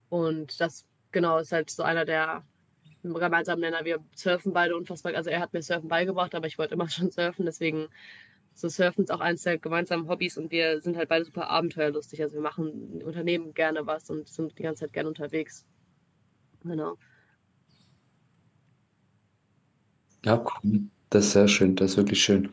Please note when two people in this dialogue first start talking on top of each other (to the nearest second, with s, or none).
none